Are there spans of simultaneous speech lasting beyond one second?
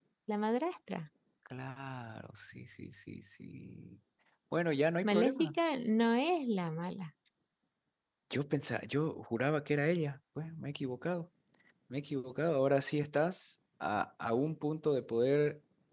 No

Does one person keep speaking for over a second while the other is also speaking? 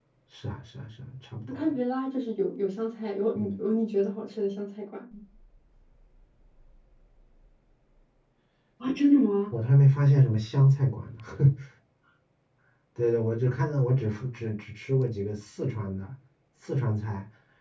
No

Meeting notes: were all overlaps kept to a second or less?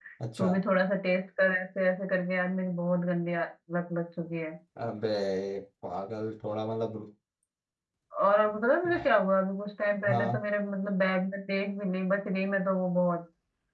Yes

